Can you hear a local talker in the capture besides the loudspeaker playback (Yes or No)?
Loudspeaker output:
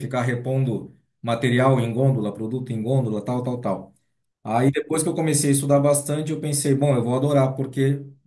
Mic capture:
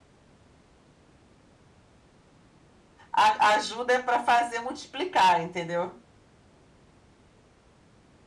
Yes